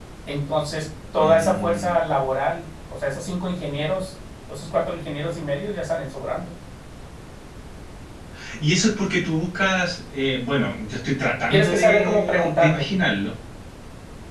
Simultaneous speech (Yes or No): Yes